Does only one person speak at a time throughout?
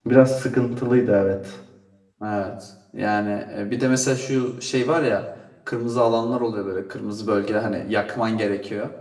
Yes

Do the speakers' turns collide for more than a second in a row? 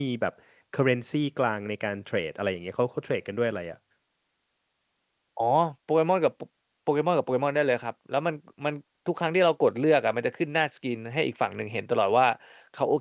No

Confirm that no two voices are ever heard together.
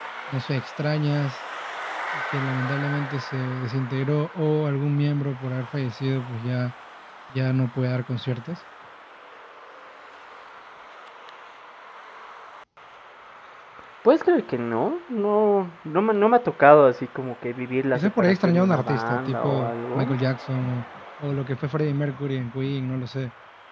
No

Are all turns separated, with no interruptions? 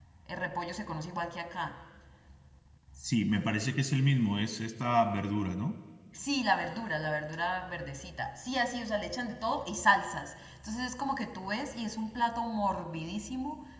Yes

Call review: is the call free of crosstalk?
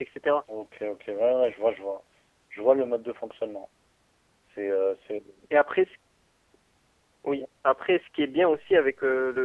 Yes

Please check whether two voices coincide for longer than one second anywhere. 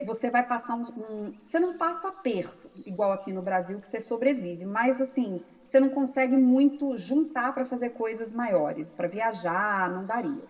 No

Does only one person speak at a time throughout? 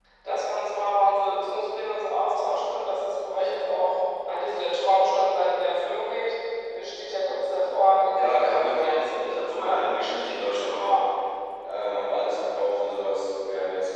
No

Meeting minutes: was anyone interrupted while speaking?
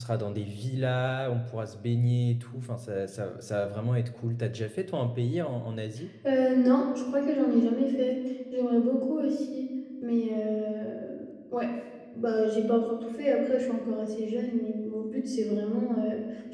No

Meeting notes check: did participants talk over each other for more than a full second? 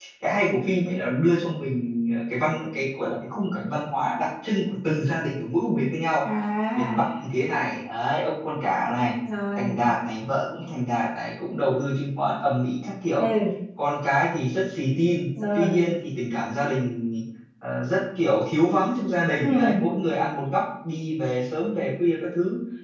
No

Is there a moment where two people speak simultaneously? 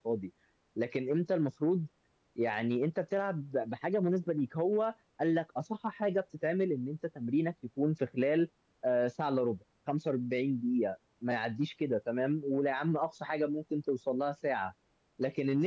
No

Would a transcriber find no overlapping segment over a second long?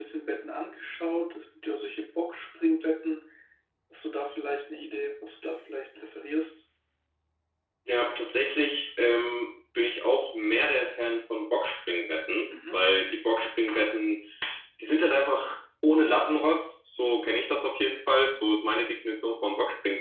Yes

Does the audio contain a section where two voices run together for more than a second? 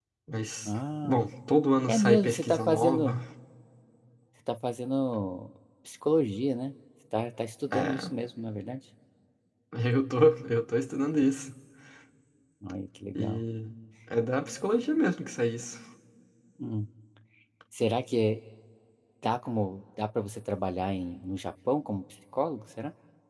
Yes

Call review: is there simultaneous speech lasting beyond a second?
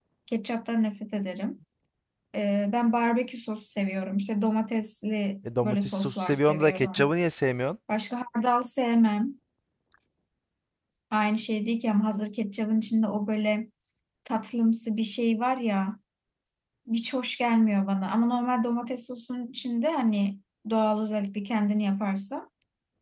Yes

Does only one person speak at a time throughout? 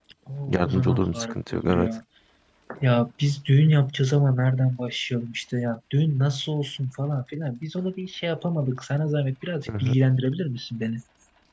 No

